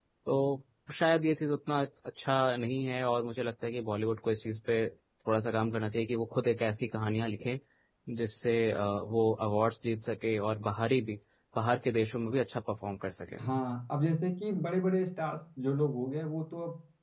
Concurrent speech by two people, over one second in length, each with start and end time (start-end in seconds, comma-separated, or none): none